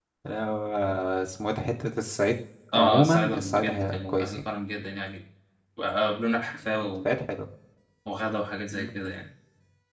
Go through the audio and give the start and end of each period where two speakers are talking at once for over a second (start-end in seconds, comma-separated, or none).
2.8-4.4